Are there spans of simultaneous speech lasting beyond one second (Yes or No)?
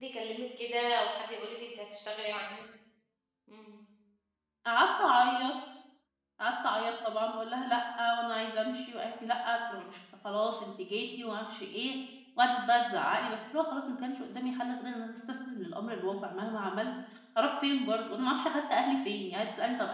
No